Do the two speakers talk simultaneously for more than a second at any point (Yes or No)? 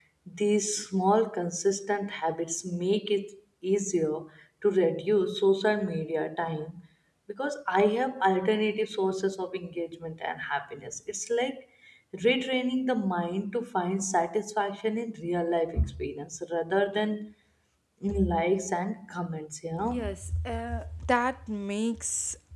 No